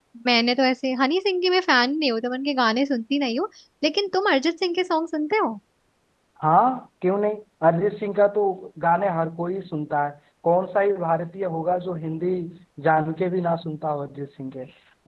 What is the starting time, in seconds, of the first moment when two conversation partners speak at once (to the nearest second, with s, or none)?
none